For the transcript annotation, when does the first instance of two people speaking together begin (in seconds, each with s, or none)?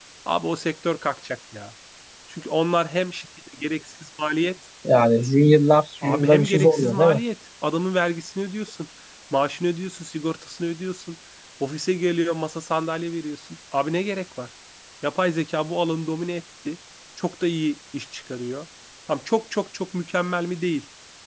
6.0 s